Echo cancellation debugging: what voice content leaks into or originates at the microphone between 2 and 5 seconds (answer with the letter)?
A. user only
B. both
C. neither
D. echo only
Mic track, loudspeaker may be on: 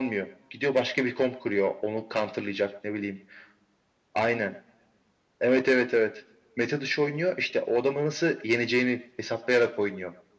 D